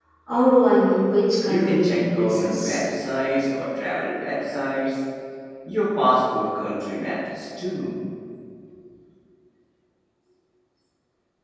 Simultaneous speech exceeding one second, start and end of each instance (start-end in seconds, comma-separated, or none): 1.4-2.8